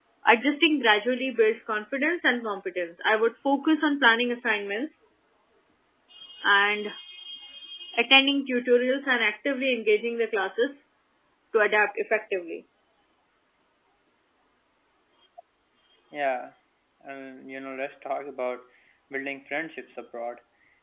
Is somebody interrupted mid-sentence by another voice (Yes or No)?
No